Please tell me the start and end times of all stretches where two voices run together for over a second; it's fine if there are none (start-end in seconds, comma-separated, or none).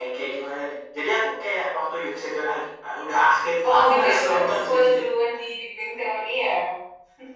3.6-5.0